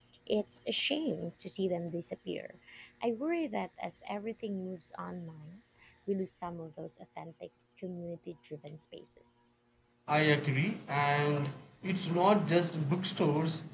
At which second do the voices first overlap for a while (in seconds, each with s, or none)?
none